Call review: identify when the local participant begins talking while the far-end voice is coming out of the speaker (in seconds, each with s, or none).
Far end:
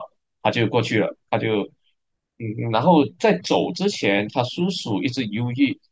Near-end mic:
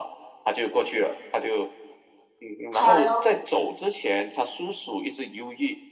2.7 s